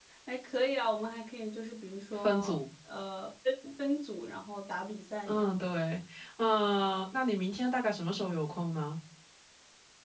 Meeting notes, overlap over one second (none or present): none